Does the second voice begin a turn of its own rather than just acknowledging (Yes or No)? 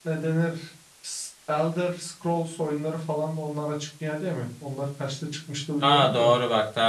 Yes